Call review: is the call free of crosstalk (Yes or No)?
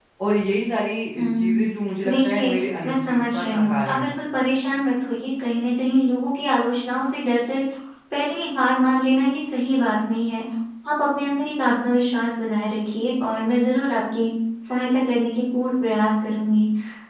No